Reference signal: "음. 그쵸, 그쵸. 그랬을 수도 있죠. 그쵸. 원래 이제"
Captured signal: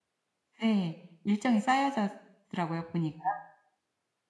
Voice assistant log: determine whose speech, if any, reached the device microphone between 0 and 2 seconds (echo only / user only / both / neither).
user only